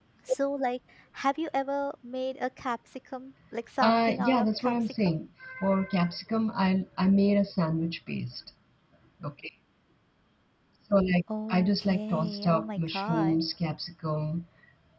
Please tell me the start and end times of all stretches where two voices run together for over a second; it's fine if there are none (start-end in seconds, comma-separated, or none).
3.8-5.1, 11.5-13.4